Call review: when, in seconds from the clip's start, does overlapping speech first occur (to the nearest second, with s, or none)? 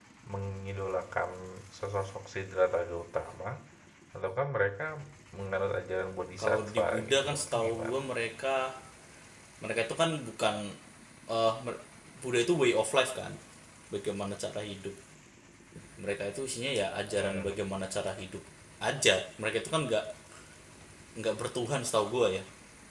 6 s